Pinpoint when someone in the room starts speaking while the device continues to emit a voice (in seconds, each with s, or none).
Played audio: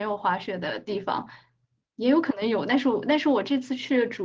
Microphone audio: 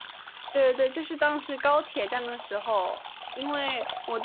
0.5 s